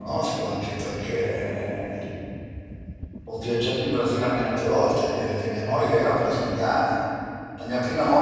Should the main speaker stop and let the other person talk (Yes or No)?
No